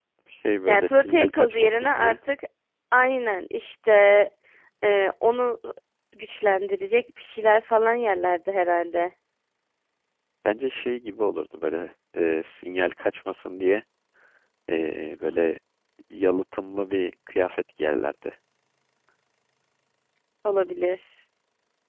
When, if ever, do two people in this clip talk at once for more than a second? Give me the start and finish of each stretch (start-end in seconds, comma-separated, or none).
0.7-2.1